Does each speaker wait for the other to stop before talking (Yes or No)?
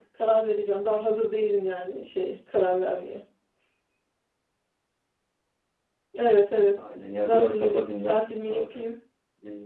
No